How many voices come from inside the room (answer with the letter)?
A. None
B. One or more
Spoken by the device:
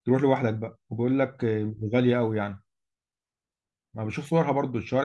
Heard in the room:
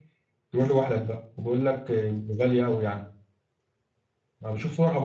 A